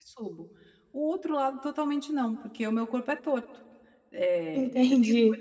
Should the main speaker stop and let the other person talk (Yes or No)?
No